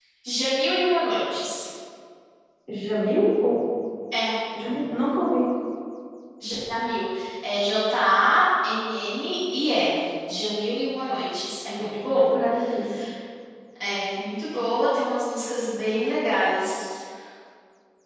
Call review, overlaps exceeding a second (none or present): none